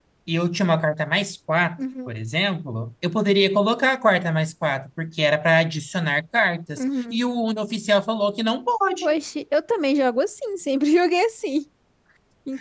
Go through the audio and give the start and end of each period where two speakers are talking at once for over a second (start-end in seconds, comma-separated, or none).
none